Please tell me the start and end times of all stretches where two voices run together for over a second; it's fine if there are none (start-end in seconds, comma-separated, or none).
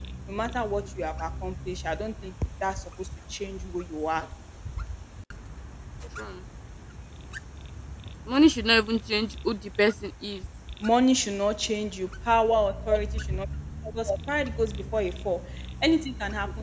none